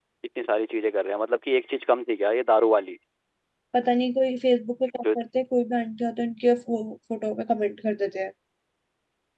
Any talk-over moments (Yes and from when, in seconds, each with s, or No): No